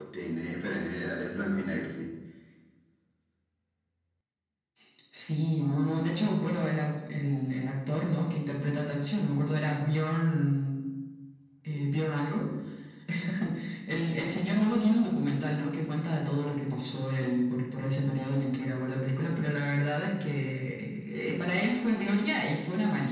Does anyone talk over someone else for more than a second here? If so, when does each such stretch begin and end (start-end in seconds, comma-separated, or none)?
none